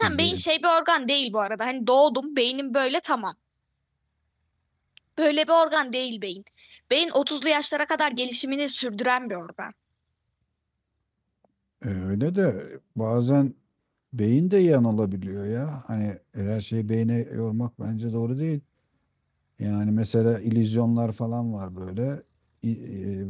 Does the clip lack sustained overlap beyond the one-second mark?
Yes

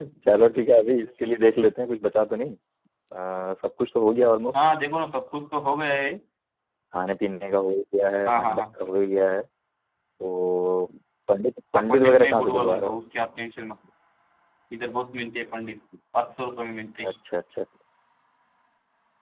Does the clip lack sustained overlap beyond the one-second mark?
No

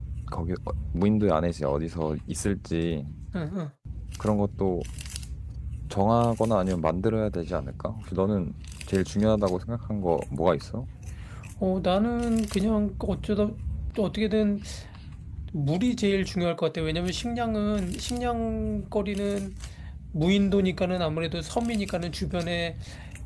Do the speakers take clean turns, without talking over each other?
Yes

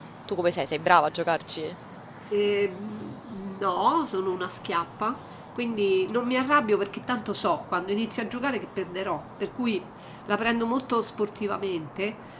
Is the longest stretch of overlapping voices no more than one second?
Yes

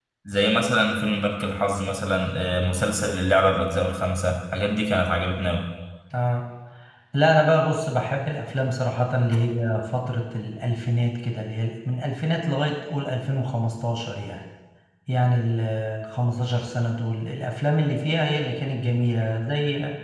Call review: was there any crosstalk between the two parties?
No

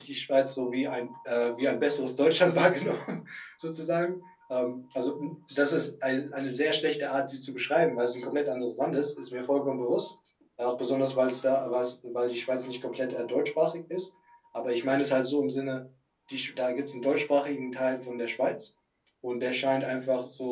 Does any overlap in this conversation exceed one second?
No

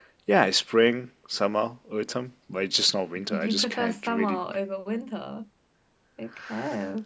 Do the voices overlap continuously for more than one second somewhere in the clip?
Yes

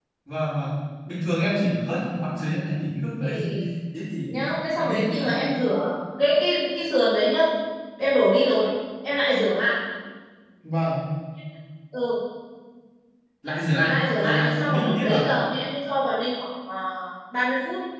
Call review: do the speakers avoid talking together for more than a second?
No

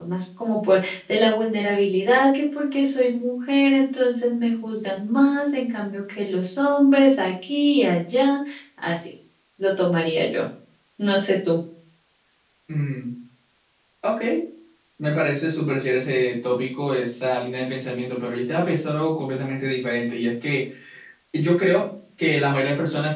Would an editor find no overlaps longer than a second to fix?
Yes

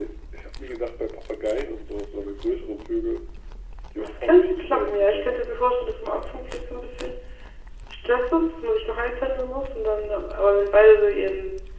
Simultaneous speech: Yes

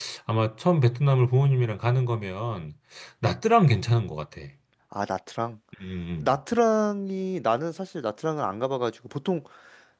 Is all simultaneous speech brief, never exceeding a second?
Yes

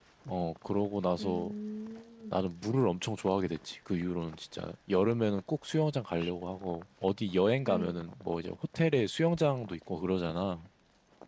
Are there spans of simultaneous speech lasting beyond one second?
No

